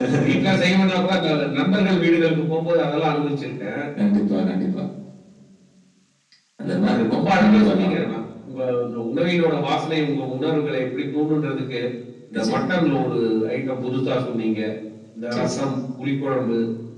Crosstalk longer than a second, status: present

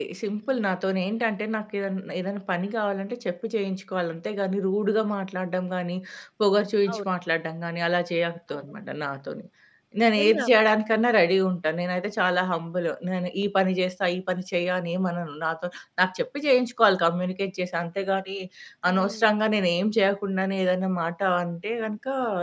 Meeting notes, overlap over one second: none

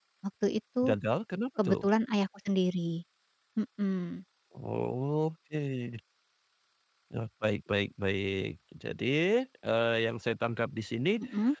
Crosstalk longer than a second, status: none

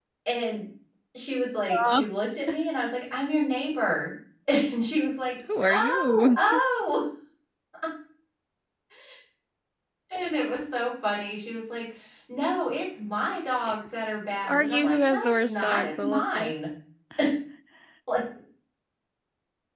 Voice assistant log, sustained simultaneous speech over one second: present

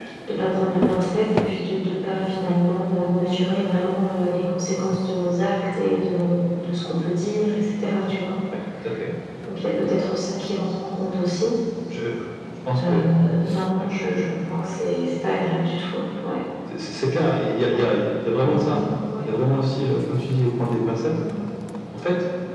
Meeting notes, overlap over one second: none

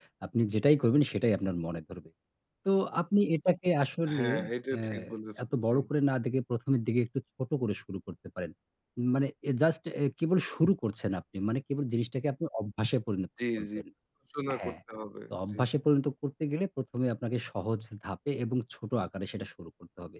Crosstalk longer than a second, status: none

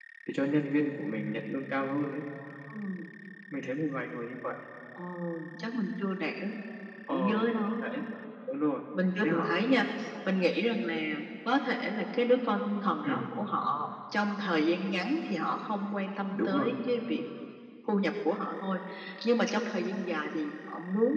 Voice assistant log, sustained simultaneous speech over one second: none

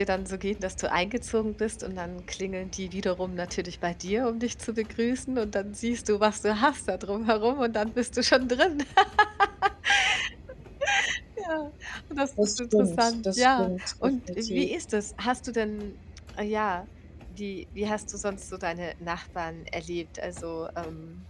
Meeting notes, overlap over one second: present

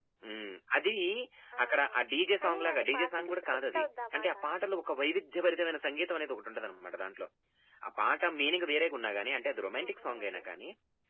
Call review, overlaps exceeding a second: present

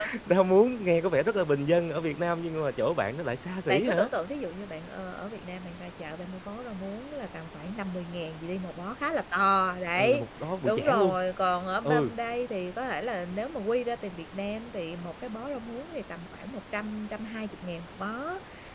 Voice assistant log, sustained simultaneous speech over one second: none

